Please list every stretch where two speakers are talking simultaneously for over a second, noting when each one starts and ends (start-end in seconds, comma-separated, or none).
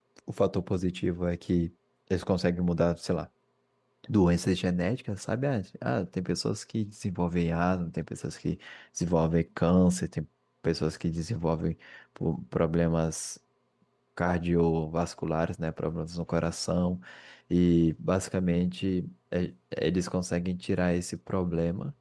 none